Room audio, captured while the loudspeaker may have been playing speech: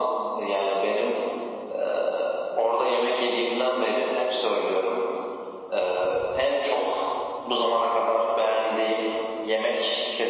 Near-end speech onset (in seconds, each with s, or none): none